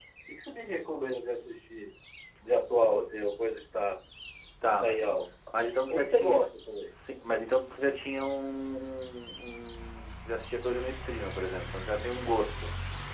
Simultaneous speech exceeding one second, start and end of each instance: none

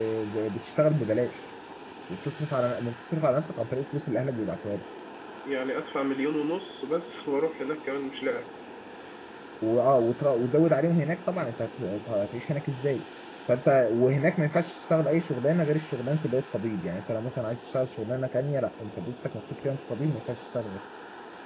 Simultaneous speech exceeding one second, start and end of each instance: none

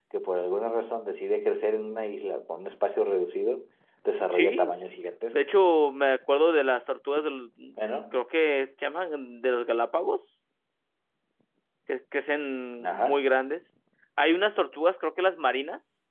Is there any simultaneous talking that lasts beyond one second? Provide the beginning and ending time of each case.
none

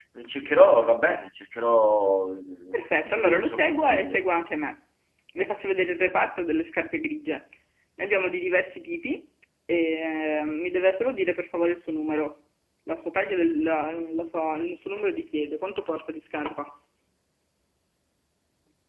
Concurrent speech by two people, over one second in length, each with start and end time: 3.0-4.3

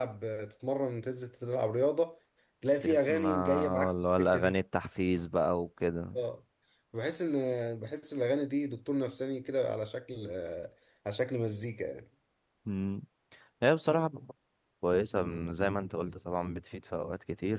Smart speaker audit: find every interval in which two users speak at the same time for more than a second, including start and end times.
2.8-4.5

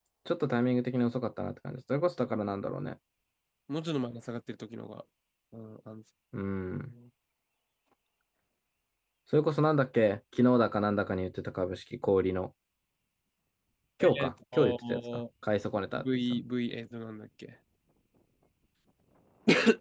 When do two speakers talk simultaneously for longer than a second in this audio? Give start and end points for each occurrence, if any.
14.0-15.2

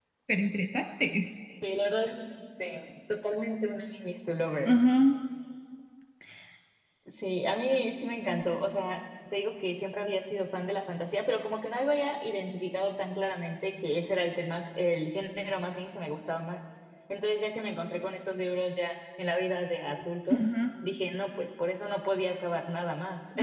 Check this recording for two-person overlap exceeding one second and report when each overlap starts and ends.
none

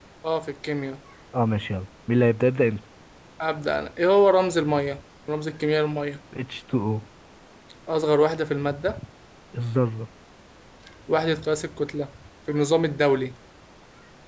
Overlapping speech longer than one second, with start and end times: none

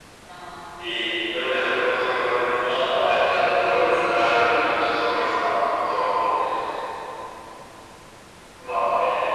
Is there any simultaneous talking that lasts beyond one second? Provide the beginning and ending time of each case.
3.0-4.6

